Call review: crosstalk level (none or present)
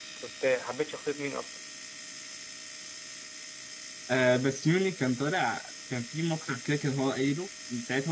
none